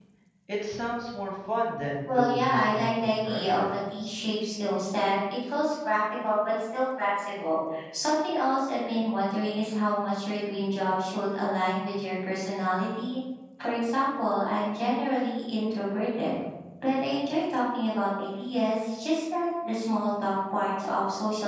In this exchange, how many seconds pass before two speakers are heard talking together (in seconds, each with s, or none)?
2.1 s